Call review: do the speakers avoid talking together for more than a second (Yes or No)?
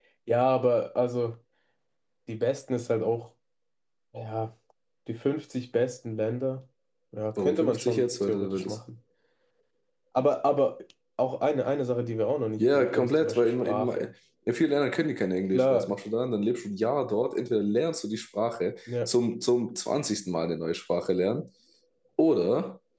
No